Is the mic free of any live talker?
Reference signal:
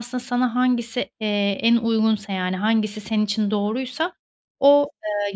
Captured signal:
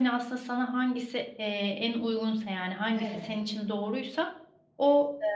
No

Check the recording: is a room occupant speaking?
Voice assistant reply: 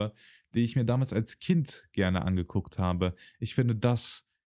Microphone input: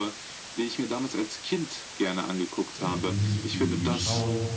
Yes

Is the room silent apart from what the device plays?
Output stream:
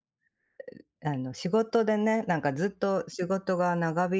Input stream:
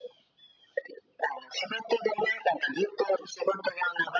Yes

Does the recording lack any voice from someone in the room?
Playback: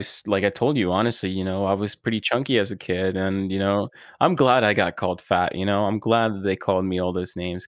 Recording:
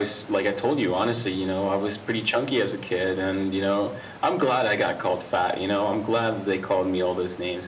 Yes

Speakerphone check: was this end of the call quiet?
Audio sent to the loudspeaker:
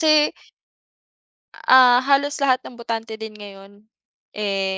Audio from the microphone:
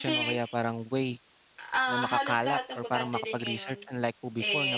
No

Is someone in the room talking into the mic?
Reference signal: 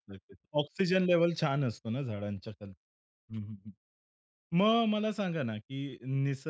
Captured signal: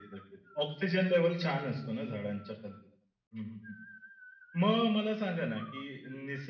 No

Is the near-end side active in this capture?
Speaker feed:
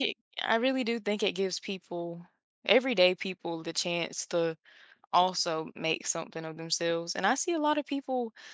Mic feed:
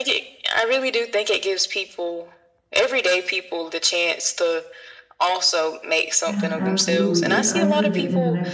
Yes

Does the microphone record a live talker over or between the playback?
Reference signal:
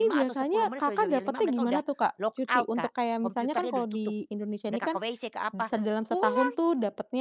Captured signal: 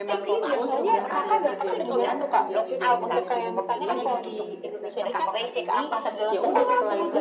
Yes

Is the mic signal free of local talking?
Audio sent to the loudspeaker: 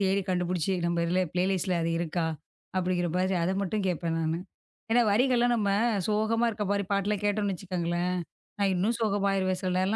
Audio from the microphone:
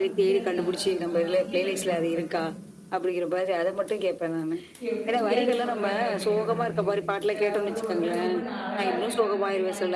No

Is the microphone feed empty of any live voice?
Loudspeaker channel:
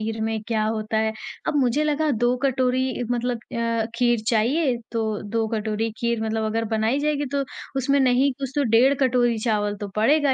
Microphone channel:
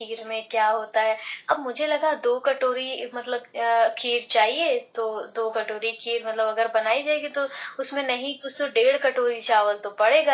Yes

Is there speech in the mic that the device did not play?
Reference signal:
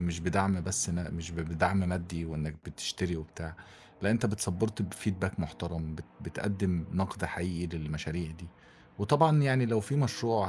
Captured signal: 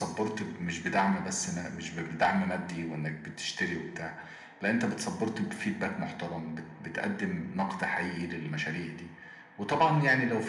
No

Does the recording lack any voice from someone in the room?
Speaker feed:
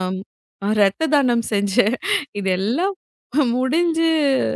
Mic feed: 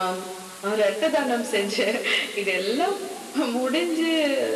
Yes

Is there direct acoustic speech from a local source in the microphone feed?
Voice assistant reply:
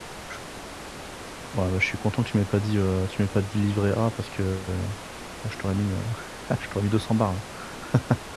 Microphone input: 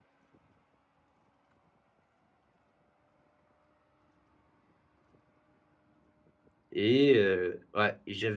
Yes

